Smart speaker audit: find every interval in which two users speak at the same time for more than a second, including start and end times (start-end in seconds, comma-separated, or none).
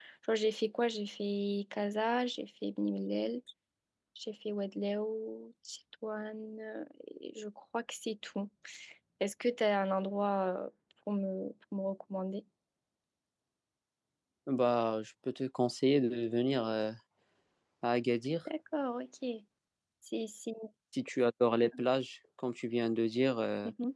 none